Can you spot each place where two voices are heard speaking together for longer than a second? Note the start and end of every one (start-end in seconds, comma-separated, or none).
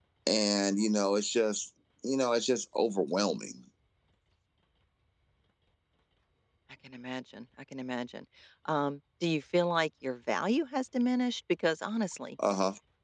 none